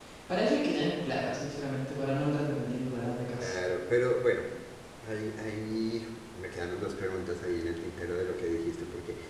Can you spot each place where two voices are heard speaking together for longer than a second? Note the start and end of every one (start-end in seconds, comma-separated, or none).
none